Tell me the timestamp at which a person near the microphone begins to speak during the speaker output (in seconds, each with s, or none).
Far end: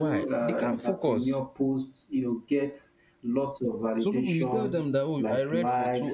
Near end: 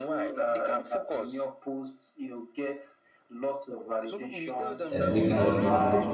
4.9 s